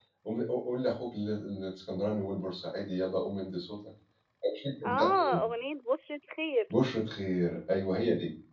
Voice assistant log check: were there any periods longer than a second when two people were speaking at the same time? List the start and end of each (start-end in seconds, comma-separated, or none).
none